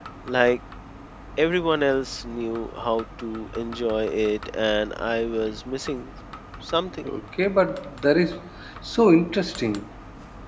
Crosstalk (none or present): none